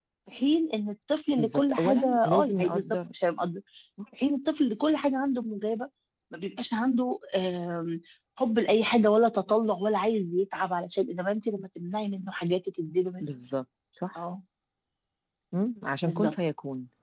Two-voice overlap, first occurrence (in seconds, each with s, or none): 1.4 s